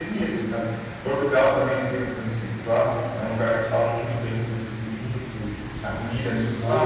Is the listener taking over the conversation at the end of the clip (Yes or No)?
Yes